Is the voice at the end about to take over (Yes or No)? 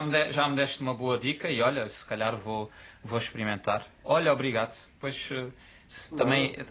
No